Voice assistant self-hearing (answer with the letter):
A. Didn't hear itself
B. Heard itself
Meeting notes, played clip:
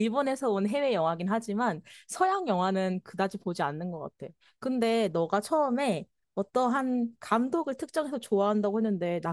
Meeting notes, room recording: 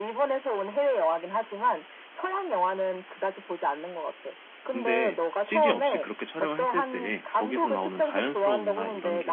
B